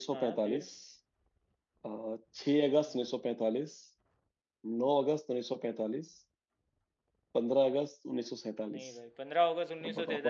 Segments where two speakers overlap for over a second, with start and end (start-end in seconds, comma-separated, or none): none